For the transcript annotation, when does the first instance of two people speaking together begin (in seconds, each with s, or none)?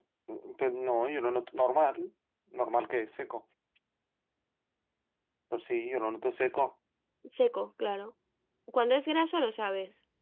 none